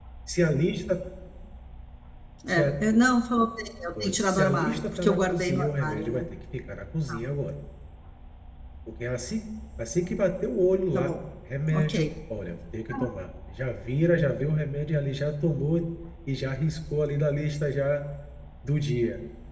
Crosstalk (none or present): present